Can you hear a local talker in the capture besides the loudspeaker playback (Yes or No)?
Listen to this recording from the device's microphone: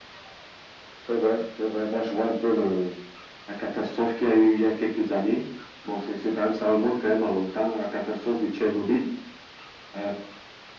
No